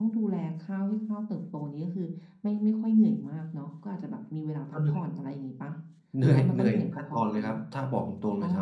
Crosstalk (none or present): present